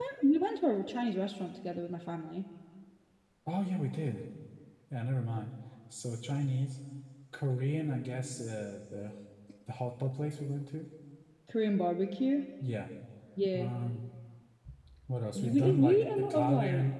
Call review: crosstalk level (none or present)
present